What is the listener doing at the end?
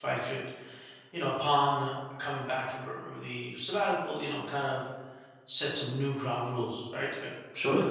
taking over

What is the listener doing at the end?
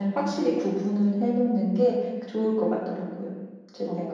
taking over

